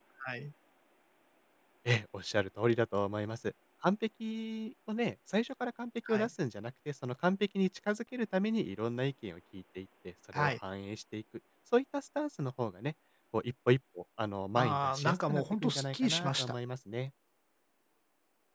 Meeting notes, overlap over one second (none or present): present